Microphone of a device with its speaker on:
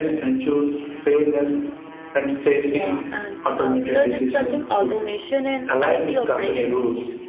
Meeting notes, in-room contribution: present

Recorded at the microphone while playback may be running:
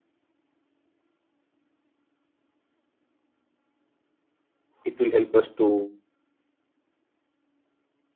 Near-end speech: present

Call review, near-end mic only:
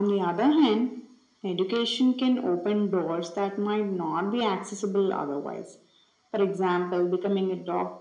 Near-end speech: none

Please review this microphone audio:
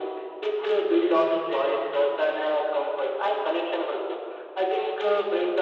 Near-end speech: none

